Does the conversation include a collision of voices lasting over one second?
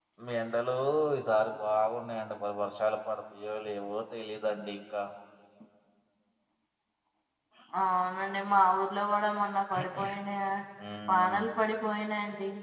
No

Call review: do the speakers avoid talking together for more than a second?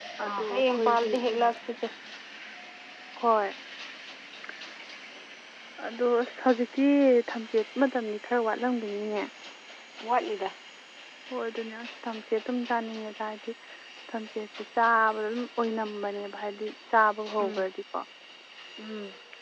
No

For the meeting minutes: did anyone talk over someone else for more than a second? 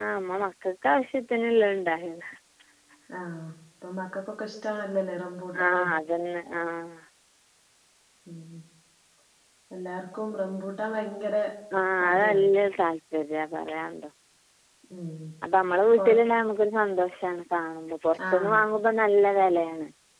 No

